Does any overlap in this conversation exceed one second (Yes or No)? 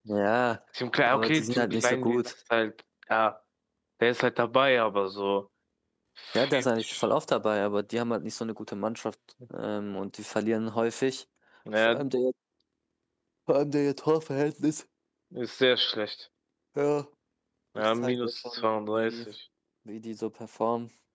Yes